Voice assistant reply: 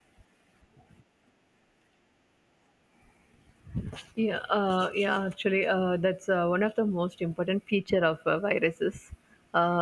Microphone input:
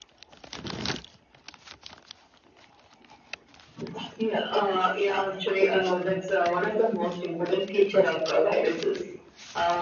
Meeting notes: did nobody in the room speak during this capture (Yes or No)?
Yes